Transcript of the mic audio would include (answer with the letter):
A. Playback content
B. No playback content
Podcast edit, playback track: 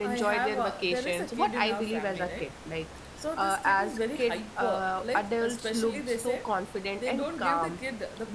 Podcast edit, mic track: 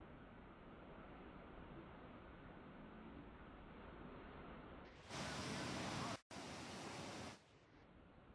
B